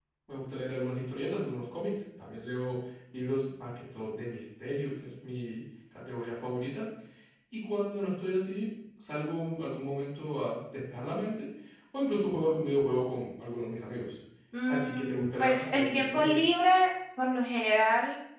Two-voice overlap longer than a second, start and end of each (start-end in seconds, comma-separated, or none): 14.7-16.4